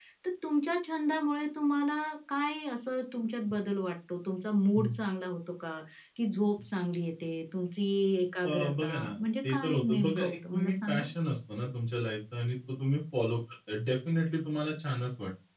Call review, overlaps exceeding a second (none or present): present